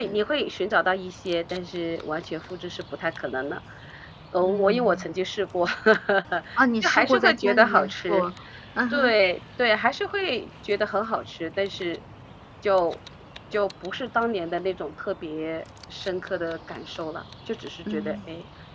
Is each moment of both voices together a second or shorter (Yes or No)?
No